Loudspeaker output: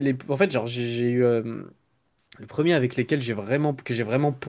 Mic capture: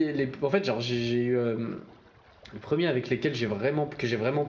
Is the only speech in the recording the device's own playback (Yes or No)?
Yes